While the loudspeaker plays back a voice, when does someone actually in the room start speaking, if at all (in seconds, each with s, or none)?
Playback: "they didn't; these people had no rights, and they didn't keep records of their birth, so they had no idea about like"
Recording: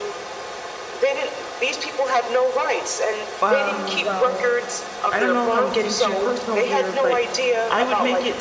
3.4 s